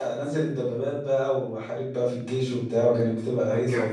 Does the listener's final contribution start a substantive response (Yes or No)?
Yes